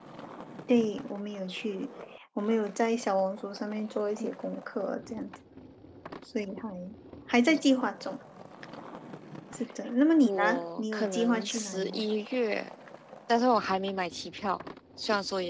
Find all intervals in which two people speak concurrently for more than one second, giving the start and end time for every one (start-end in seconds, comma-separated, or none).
10.2-12.0